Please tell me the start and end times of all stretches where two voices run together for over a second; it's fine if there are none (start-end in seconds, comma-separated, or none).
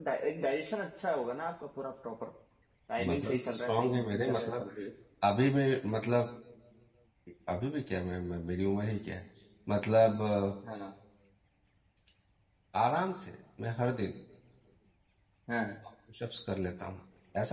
3.1-4.6